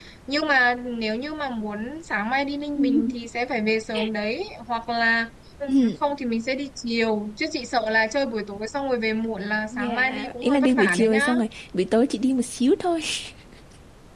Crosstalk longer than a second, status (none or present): present